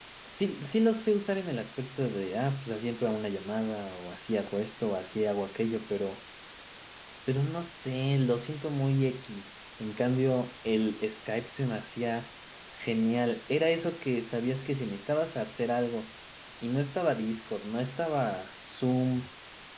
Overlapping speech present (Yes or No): No